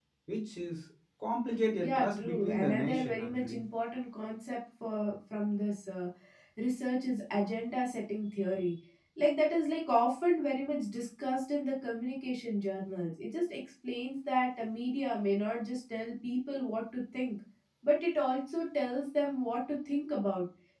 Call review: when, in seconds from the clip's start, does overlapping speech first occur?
2 s

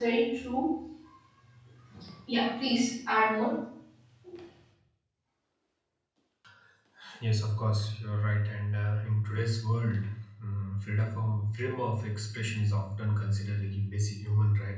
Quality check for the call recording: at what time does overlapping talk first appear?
none

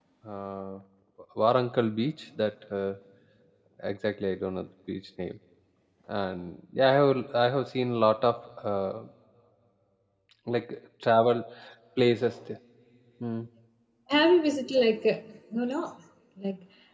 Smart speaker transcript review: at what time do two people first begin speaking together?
none

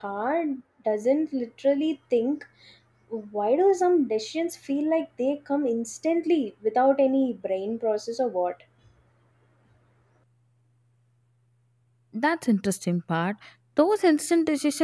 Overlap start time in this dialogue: none

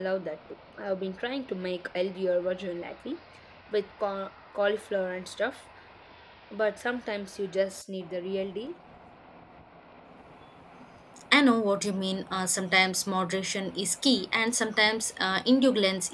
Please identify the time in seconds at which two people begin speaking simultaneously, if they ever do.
none

